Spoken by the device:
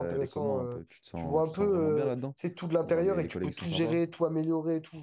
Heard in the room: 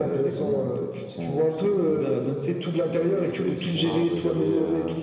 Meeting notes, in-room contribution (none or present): present